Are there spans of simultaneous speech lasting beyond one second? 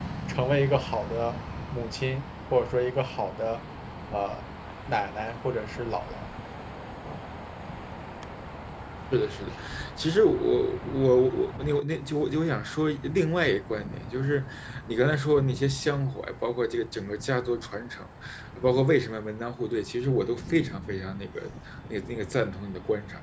No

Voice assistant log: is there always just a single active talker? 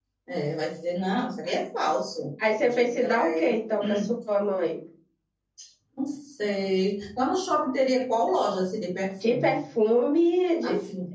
No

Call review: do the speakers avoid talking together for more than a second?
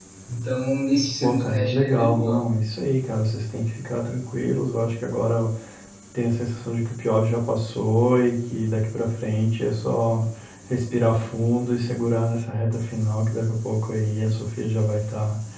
No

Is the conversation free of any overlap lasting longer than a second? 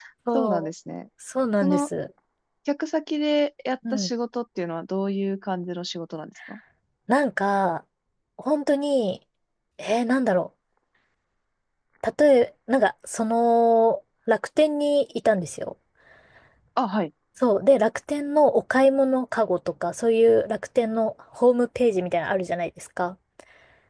Yes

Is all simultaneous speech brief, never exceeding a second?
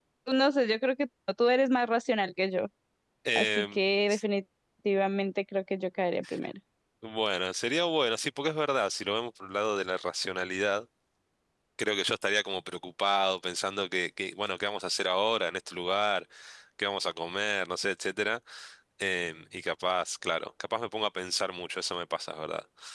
Yes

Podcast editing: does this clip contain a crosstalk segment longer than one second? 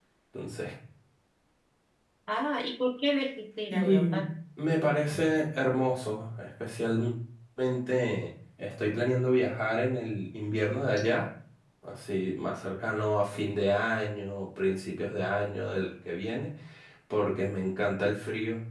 No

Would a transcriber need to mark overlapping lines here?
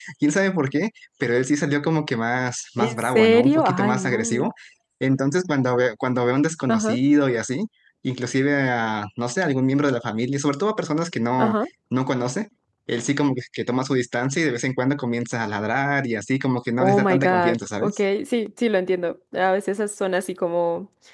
Yes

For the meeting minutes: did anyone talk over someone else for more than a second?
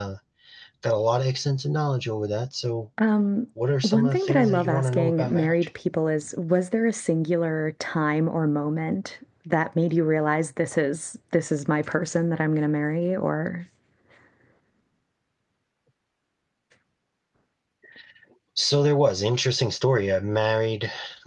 Yes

